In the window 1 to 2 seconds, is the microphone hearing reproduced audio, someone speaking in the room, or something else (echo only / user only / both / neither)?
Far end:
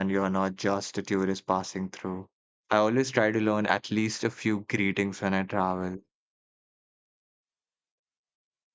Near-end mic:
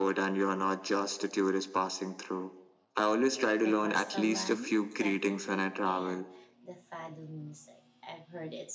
echo only